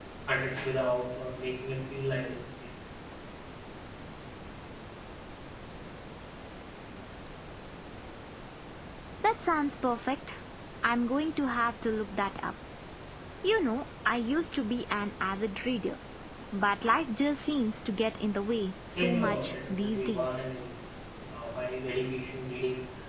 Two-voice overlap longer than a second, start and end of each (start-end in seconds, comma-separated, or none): 19.0-20.3